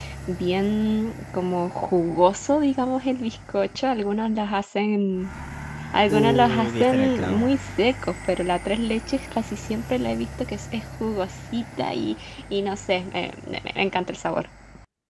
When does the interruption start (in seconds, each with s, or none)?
6.1 s